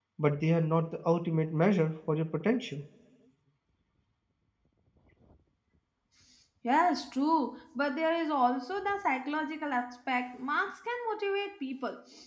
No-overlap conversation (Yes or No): Yes